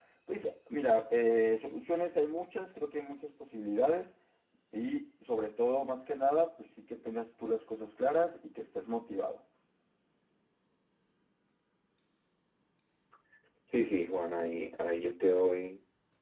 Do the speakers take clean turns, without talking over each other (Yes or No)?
Yes